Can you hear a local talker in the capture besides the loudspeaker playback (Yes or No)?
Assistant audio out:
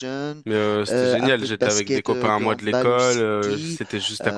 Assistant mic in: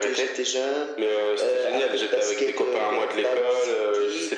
No